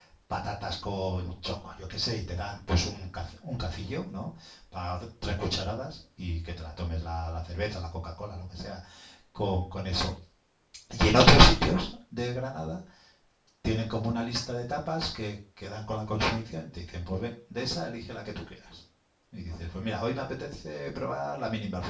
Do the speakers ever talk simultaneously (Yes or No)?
No